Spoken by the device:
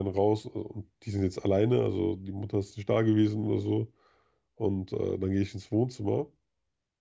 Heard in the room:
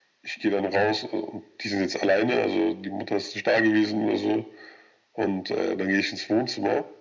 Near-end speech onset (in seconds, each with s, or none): none